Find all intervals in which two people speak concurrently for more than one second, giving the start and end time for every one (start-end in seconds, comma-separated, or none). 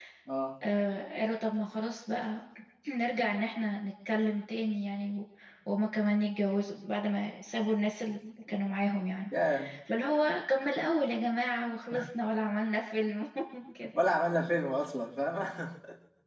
none